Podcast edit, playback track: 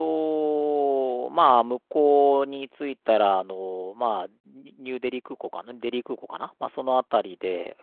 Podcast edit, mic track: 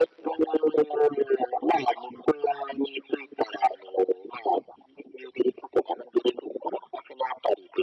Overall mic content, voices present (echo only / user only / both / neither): echo only